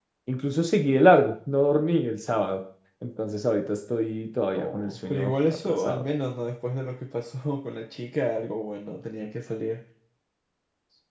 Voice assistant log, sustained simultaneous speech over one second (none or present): present